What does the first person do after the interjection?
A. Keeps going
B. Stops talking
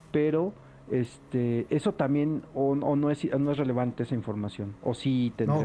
B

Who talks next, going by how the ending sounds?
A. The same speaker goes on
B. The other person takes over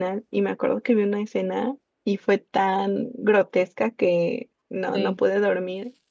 A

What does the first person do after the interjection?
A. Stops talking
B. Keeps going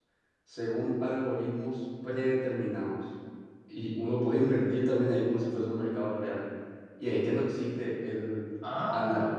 B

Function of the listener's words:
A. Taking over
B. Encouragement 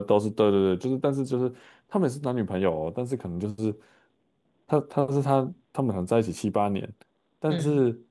B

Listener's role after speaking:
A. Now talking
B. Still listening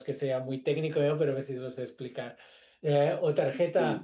B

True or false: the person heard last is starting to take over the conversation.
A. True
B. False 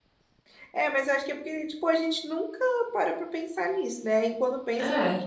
B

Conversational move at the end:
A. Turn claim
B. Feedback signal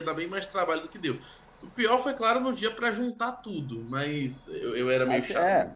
A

